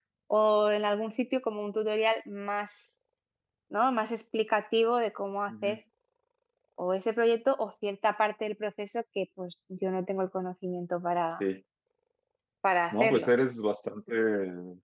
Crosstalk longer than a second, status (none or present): none